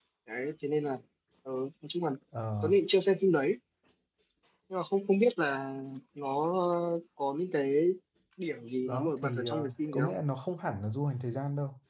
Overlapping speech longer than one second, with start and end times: 8.8-10.1

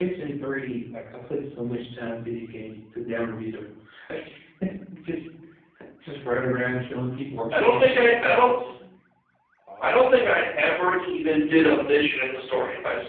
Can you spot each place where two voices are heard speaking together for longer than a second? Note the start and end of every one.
7.5-8.8

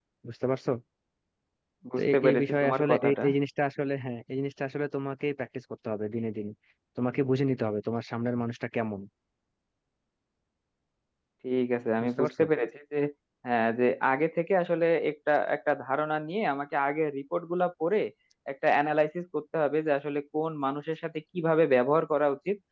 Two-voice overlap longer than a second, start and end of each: 2.0-3.2

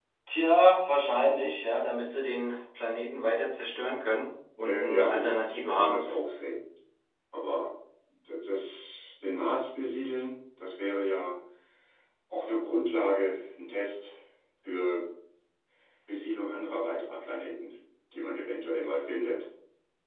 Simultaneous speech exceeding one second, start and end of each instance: 4.6-6.0

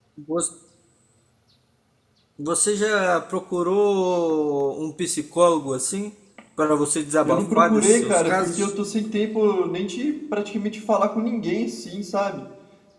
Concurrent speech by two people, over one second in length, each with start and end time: 7.2-8.7

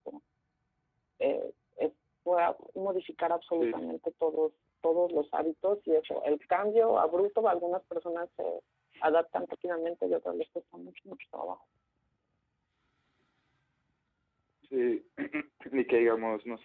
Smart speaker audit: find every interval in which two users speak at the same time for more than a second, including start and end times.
none

